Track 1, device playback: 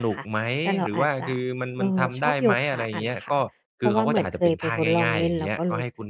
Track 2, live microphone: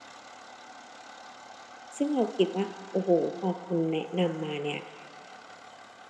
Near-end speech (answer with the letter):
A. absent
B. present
B